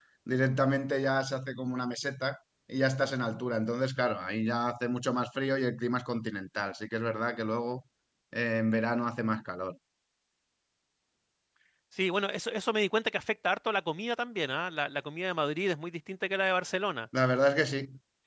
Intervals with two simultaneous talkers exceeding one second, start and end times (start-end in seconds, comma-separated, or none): none